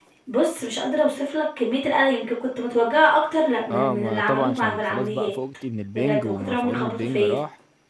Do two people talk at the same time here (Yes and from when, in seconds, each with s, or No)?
Yes, from 3.7 s